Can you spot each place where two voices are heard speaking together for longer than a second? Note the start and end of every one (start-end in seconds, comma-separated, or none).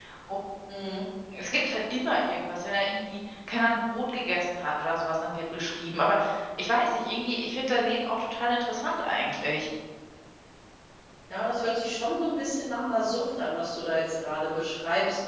none